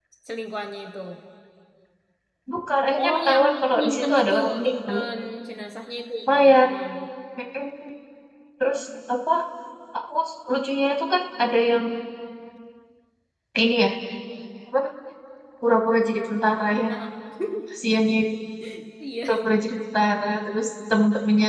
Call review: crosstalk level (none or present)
present